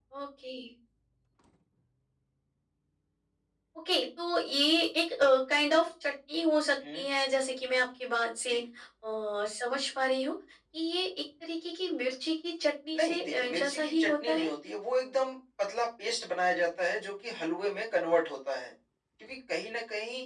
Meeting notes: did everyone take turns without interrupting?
No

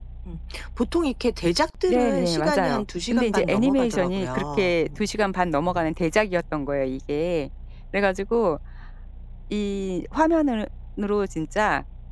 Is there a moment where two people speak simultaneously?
Yes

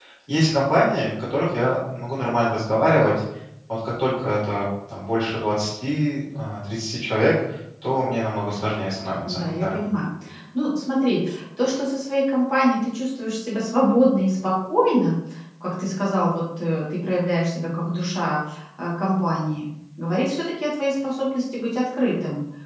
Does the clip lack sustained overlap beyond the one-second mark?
Yes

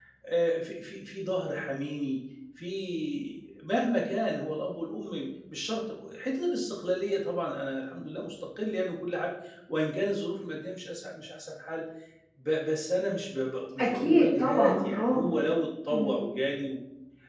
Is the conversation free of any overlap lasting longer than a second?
No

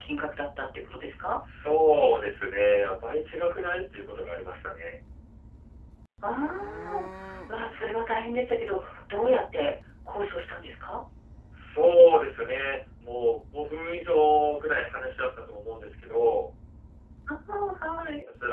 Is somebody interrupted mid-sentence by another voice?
No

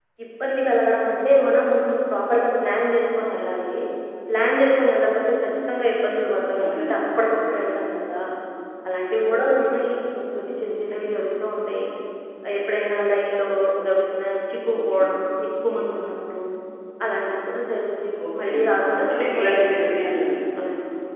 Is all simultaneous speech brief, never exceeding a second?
Yes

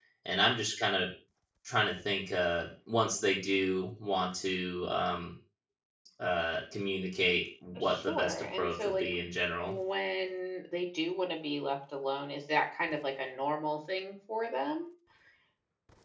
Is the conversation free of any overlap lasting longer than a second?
No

